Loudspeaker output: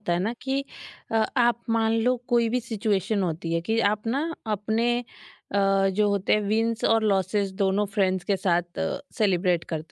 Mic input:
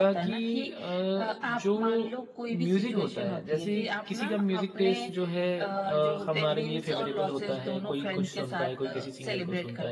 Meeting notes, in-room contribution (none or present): present